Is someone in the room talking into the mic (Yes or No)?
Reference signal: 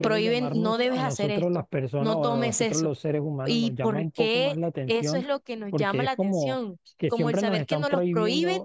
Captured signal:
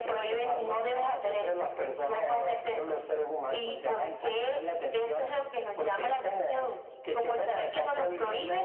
No